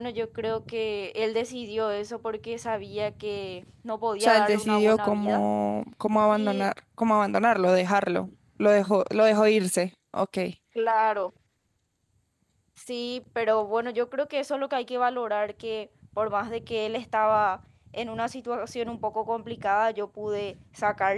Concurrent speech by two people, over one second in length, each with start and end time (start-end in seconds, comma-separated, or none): 4.2-5.4